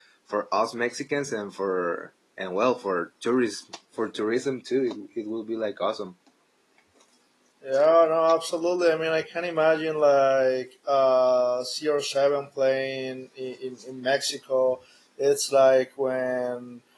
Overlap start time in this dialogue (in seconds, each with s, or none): none